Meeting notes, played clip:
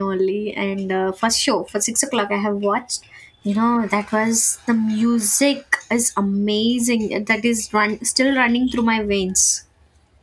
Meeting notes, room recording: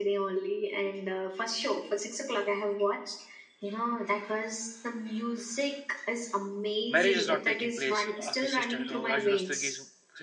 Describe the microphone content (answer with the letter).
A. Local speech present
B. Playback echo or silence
A